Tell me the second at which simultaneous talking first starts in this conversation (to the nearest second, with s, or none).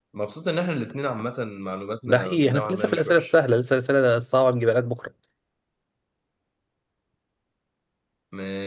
2 s